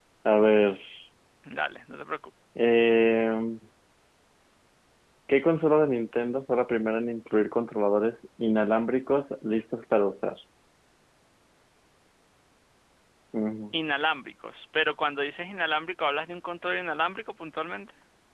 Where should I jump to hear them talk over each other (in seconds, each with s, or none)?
none